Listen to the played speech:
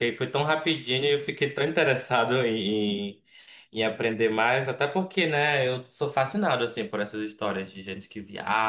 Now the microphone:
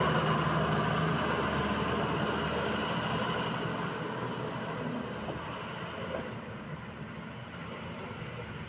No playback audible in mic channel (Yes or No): Yes